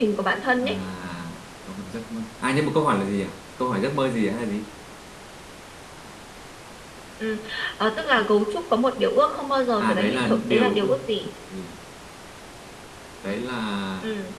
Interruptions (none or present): present